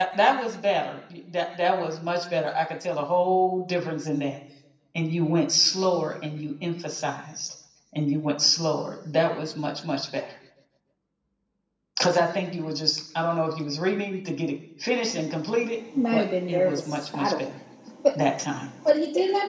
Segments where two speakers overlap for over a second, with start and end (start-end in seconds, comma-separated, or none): 16.1-17.5